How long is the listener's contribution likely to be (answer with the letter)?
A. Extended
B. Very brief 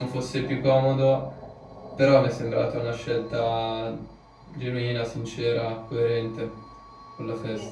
A